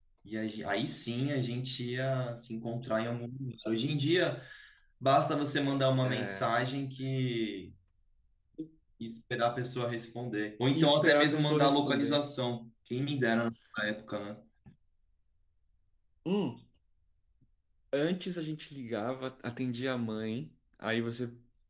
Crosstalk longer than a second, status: present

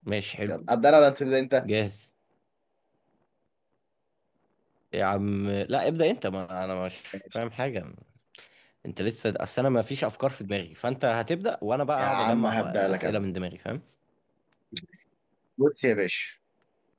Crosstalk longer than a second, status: present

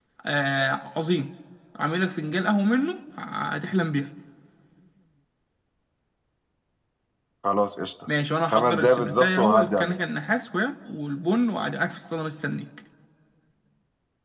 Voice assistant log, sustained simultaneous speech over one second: present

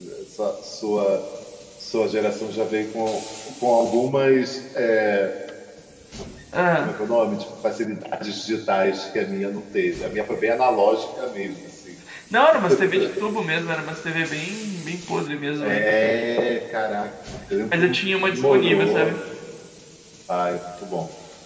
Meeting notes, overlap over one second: present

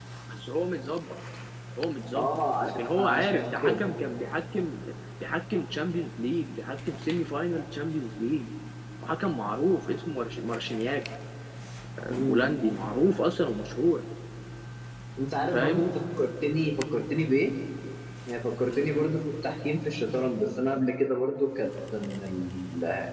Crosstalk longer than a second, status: present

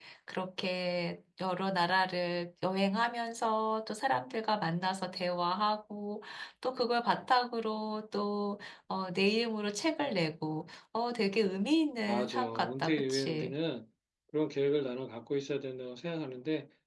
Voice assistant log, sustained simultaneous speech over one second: present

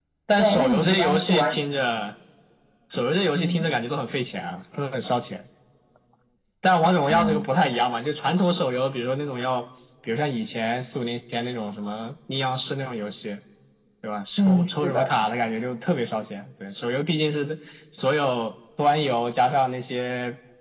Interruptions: present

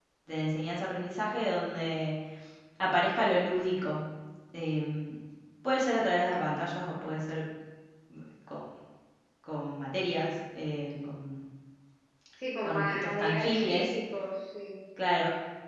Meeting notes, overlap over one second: present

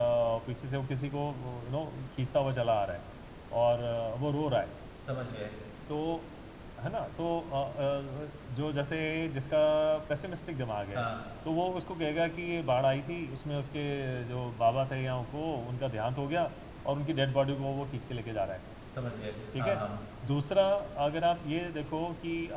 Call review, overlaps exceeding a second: none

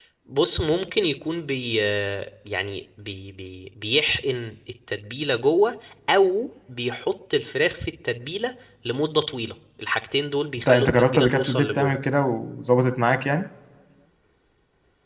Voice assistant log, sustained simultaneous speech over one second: present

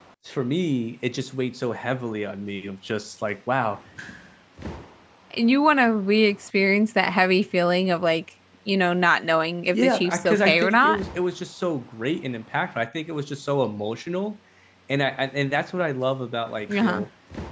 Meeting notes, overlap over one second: present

